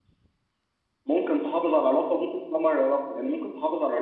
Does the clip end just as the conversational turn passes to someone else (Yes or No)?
No